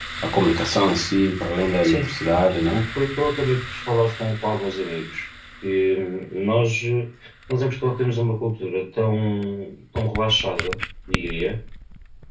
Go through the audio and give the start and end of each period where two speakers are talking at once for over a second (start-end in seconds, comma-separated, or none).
none